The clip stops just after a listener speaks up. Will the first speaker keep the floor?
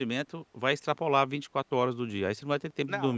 No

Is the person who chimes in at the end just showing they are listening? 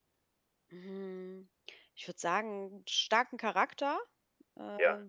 Yes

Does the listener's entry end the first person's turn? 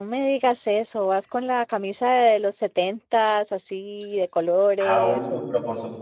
Yes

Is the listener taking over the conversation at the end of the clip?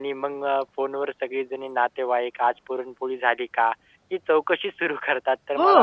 No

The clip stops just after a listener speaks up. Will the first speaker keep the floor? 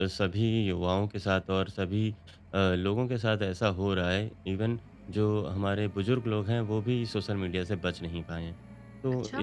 Yes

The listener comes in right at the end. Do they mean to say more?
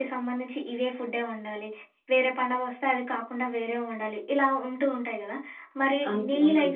No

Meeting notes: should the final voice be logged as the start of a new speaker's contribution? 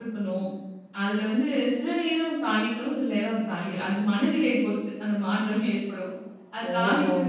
No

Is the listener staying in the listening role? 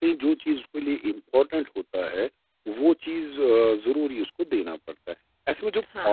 Yes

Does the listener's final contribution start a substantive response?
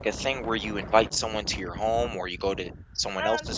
Yes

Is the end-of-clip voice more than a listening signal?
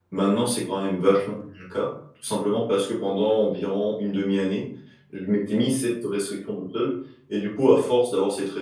No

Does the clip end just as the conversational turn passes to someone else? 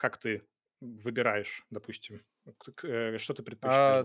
Yes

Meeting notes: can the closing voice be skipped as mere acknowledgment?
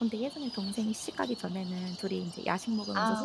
Yes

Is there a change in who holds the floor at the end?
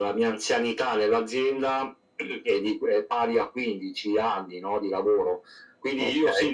No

